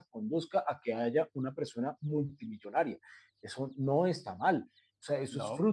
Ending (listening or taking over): listening